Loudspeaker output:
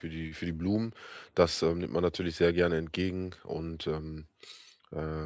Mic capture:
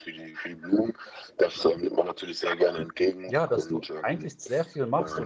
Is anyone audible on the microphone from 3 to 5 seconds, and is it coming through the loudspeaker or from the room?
both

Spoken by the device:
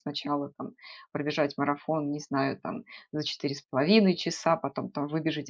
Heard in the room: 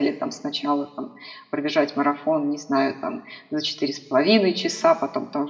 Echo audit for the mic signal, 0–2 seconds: echo only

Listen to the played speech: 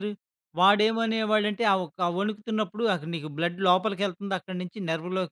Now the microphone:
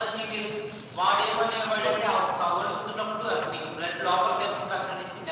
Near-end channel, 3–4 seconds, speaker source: echo only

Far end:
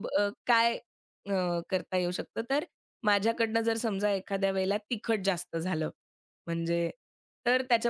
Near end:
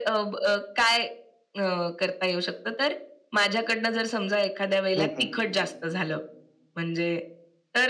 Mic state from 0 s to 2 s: echo only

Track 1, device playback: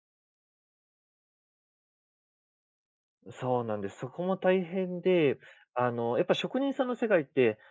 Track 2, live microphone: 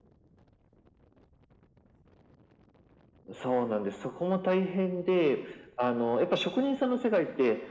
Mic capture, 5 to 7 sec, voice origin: echo only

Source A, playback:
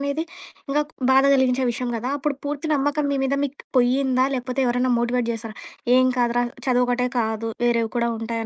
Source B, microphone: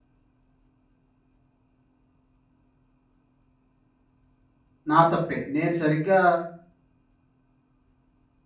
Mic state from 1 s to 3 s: neither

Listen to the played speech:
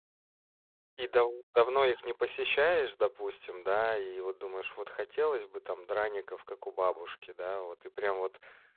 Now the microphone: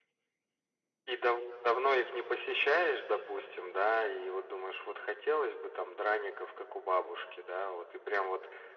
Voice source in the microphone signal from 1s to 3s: echo only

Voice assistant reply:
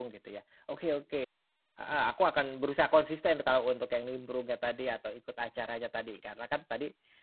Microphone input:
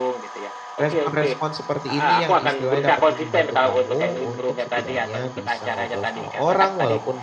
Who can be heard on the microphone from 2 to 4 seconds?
both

